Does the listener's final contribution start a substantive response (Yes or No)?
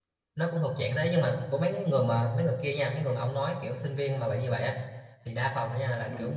No